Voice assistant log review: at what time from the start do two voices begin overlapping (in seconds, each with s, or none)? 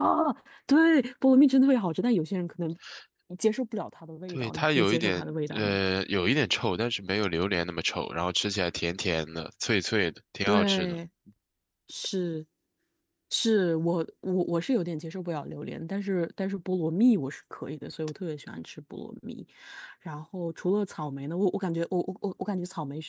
4.3 s